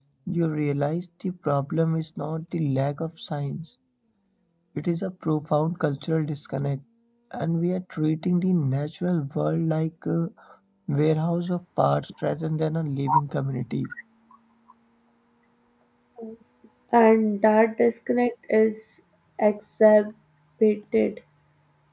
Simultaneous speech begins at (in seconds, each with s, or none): none